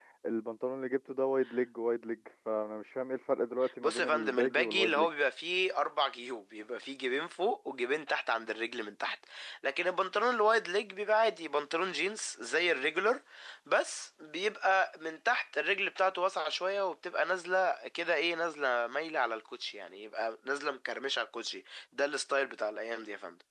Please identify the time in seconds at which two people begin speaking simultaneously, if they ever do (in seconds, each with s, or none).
3.6 s